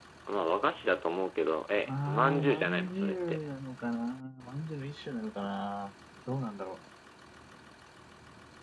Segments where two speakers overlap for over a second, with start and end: 1.9-3.4

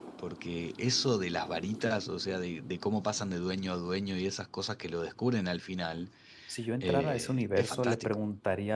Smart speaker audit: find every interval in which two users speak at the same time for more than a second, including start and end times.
6.8-8.2

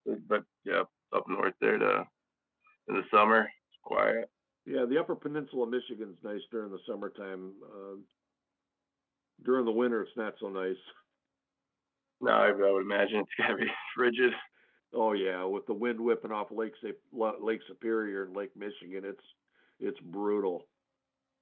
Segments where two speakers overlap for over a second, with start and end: none

